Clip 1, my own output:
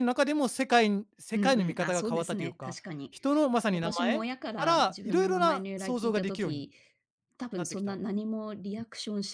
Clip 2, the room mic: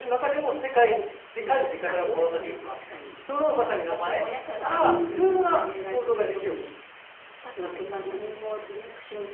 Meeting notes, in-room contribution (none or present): present